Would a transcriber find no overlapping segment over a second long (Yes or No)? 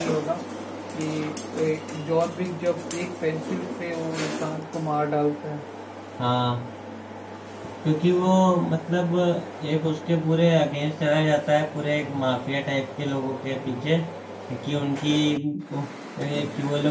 Yes